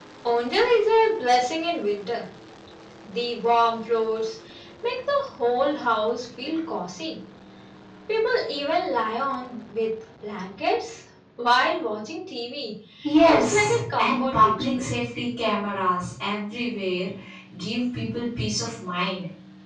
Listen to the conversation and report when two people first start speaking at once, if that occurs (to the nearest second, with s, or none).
13 s